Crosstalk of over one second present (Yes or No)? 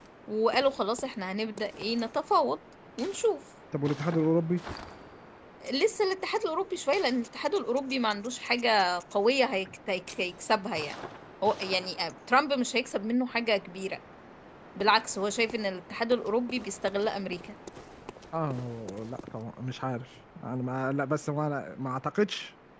No